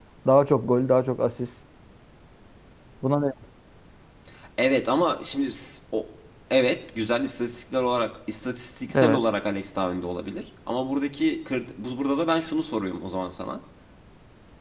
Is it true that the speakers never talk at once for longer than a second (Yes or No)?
Yes